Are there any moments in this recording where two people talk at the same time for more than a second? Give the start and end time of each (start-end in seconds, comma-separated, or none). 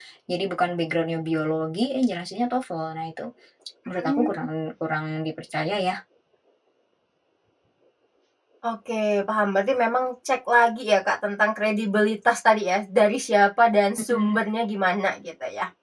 none